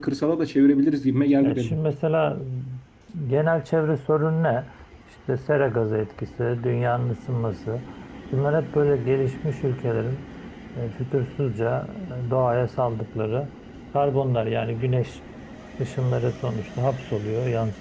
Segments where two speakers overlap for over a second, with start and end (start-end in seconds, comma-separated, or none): none